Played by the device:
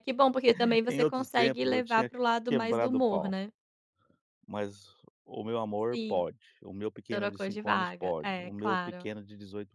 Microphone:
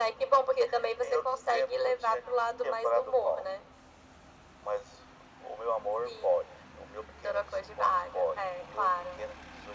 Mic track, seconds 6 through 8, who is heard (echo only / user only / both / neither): echo only